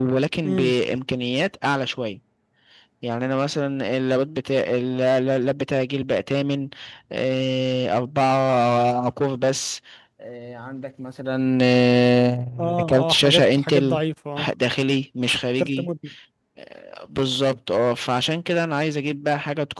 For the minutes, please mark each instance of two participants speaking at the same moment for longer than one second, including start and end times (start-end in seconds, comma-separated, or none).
12.6-14.0